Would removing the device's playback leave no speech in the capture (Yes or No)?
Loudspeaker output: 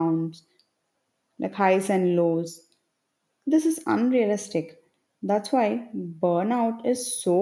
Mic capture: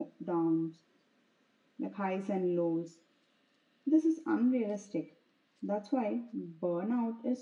Yes